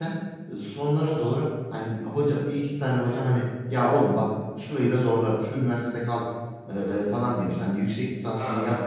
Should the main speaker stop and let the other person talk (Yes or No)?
No